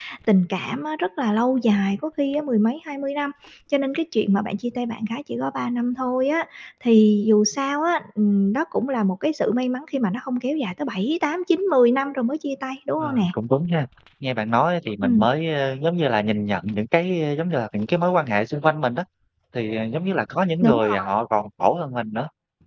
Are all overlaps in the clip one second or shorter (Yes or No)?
Yes